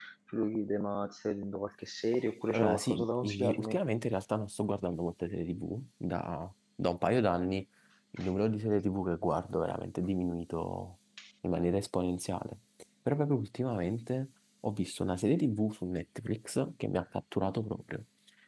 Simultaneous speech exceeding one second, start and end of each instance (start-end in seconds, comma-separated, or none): 2.5-3.8